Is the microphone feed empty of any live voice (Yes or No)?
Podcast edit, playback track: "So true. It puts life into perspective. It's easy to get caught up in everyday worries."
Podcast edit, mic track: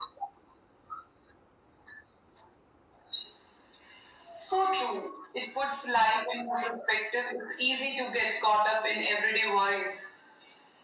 Yes